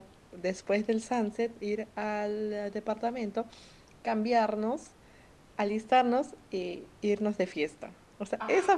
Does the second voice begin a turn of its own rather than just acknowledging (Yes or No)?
No